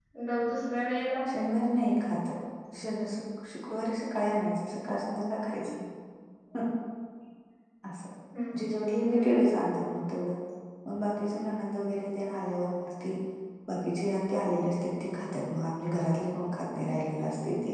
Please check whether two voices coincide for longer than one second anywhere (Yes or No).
No